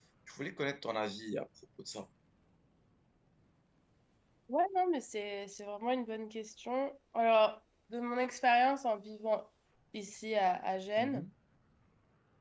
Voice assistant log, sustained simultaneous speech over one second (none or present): none